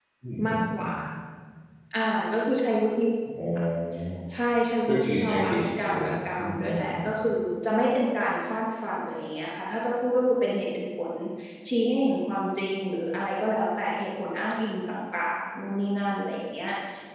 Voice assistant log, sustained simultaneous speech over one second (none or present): present